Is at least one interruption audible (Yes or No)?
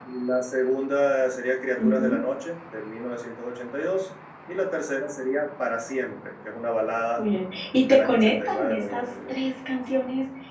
Yes